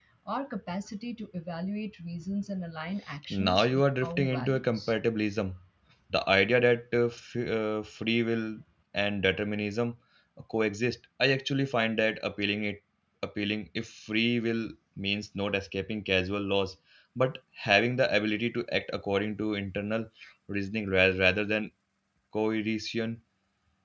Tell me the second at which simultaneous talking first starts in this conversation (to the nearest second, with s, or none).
3 s